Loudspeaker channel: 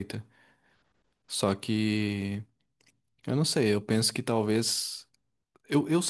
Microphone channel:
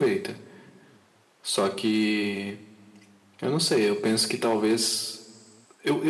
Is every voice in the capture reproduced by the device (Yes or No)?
Yes